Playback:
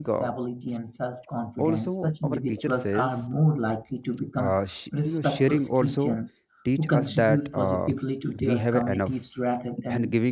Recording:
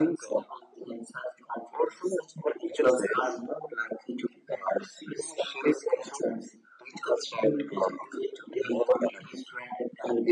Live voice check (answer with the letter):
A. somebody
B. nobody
B